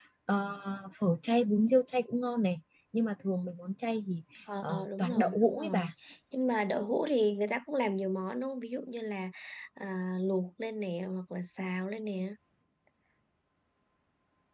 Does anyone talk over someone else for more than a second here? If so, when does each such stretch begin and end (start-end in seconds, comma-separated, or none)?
4.6-5.9